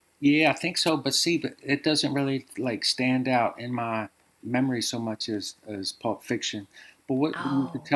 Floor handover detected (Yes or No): No